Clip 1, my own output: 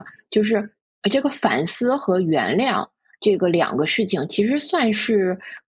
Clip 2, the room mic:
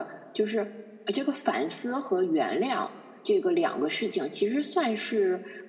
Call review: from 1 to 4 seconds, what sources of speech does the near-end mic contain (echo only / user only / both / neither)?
echo only